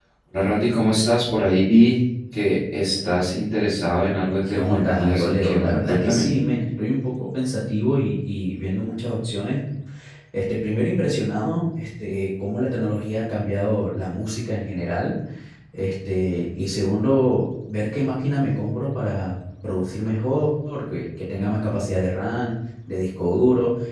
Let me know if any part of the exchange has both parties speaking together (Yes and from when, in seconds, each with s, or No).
Yes, from 4.5 s